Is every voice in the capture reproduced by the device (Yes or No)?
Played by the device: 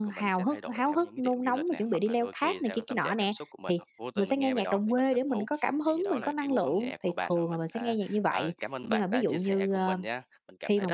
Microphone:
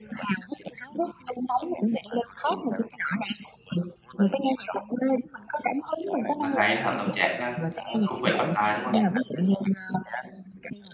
No